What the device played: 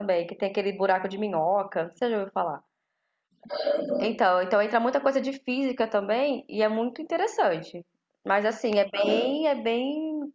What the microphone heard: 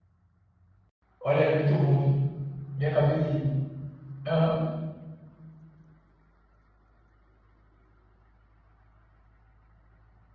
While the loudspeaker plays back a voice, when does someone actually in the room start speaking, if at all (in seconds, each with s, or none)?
1.2 s